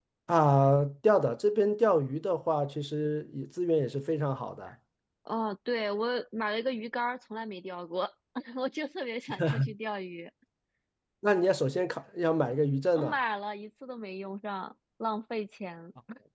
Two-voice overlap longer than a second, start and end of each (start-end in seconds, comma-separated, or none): none